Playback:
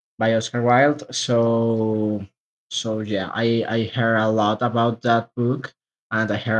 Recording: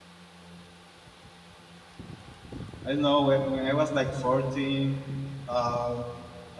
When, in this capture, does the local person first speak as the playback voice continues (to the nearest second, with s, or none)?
3 s